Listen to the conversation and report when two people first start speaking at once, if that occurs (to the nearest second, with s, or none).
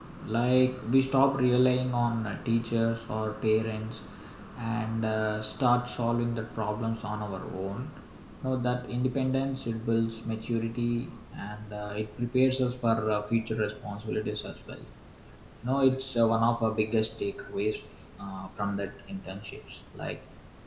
none